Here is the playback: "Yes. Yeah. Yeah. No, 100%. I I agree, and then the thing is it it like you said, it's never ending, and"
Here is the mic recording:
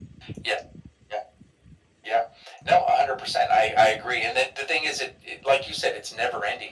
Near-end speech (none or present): none